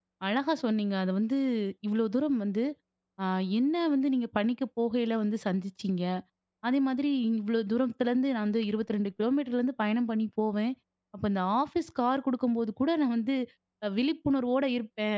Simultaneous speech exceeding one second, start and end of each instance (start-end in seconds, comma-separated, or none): none